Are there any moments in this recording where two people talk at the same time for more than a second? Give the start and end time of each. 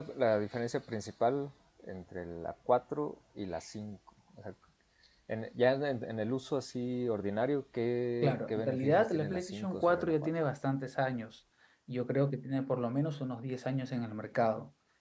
8.2-10.1

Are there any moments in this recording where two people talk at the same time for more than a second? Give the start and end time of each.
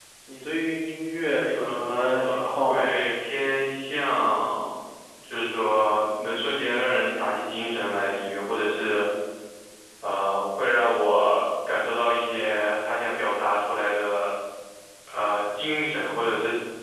1.5-2.9

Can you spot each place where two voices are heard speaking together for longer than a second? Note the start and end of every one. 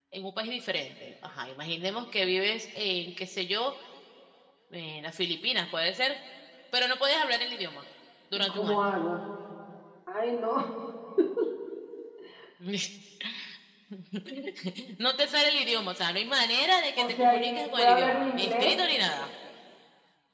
17.0-18.8

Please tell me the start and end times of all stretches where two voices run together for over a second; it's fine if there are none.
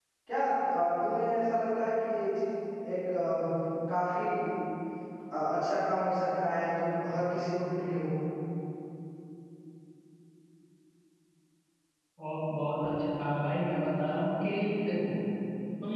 none

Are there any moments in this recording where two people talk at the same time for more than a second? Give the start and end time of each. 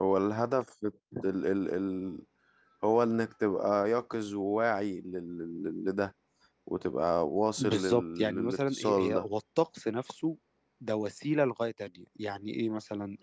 7.6-9.2

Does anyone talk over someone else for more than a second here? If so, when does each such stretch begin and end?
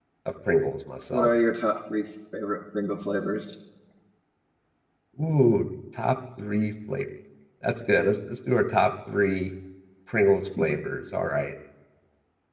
none

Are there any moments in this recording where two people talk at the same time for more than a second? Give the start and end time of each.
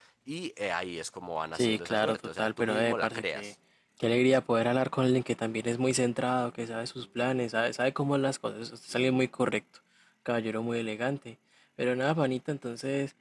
1.5-3.5

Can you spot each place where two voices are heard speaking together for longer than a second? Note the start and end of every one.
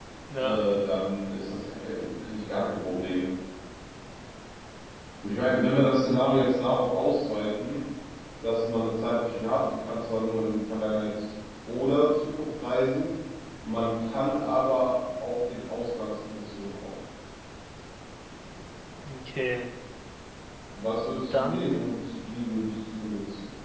none

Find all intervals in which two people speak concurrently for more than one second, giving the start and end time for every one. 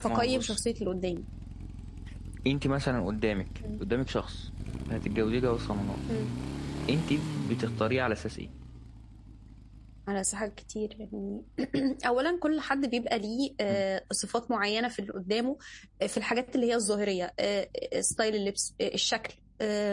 none

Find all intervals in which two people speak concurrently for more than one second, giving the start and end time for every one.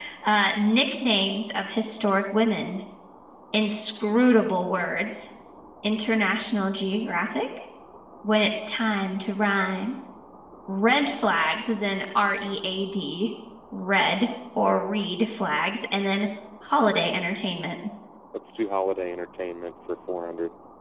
none

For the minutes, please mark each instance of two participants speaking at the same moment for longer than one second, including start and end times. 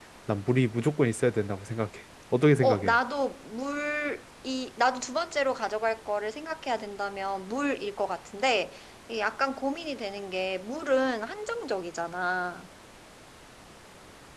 none

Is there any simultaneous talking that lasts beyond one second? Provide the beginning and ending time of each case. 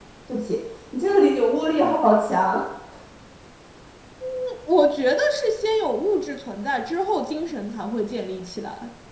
none

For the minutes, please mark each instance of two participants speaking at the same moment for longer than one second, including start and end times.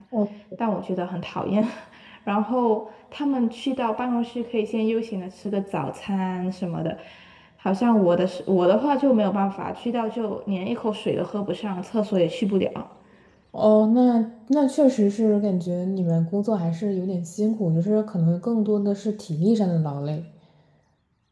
none

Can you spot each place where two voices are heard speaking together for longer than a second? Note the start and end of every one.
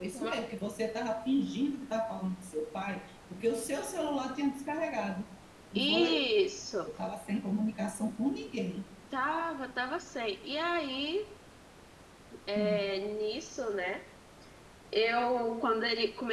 none

